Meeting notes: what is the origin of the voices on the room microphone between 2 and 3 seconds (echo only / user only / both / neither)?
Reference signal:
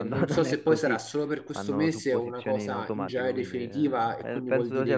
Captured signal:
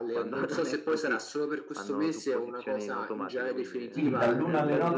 echo only